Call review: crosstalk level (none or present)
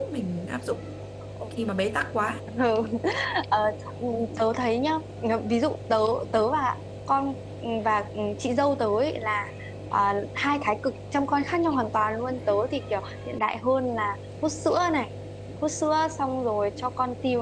none